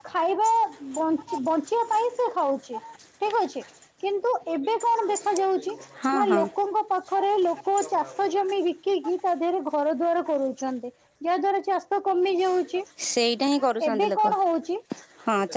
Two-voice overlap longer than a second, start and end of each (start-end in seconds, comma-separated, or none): none